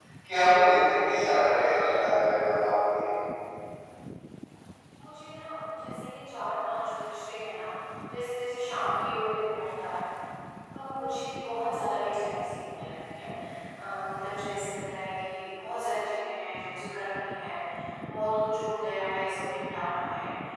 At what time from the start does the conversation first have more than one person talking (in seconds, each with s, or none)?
none